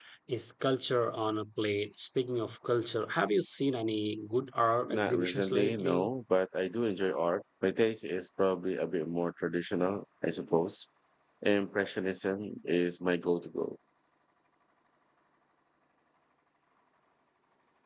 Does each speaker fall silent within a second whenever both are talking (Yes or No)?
No